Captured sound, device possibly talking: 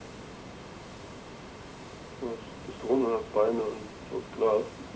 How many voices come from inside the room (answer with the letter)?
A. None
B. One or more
A